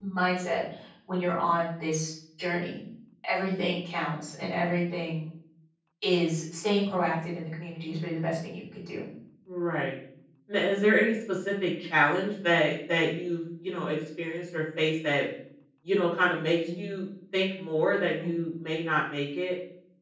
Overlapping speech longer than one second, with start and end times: none

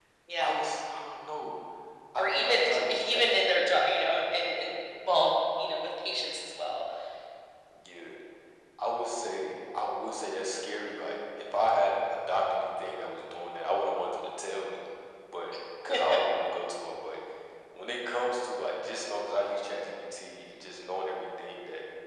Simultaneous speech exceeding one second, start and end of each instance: 2.2-3.5

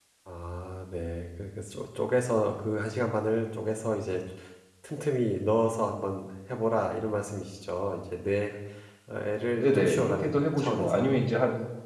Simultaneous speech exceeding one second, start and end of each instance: 9.6-11.2

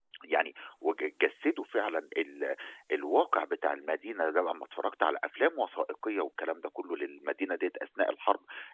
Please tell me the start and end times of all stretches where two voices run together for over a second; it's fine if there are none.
none

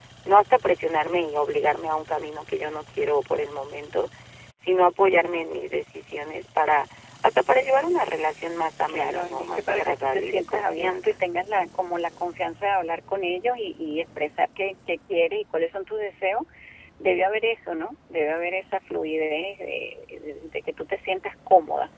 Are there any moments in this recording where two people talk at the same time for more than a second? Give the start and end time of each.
8.9-11.1

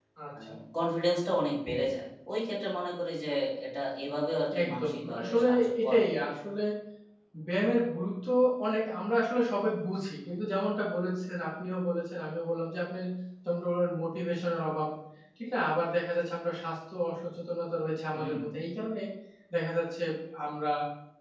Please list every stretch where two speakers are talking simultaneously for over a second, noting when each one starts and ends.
4.6-6.0

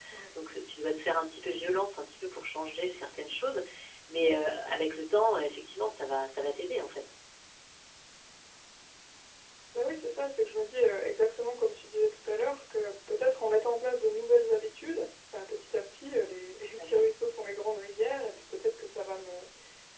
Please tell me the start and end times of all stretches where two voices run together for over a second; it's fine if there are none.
none

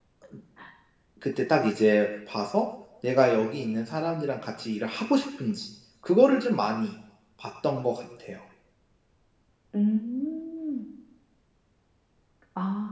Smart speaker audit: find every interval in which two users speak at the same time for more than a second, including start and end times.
none

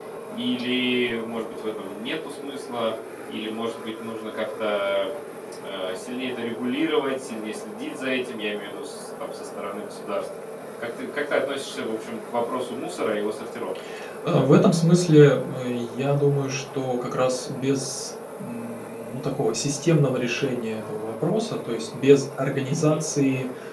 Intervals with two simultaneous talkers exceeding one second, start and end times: none

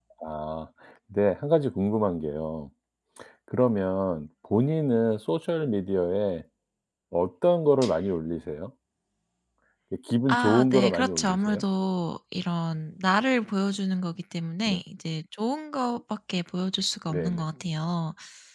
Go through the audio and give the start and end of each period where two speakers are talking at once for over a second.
10.3-11.6

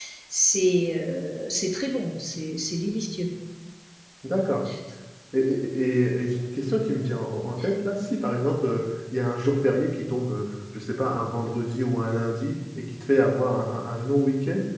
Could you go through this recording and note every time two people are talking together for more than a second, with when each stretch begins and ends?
none

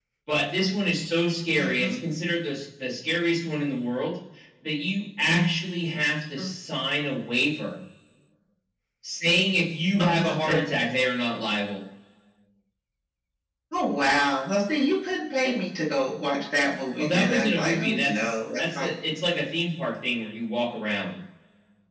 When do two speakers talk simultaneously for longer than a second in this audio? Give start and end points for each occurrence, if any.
17.0-18.9

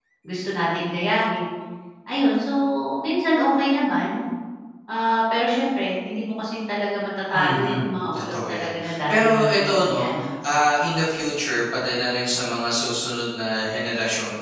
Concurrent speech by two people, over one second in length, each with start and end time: 7.4-9.6

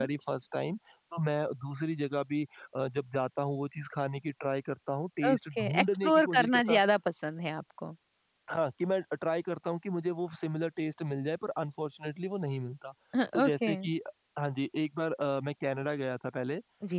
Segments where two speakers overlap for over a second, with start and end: 5.3-6.8

